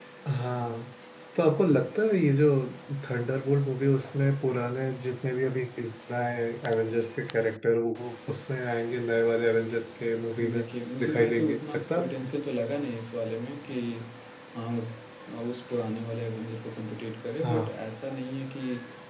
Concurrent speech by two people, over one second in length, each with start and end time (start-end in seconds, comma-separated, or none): 11.0-12.3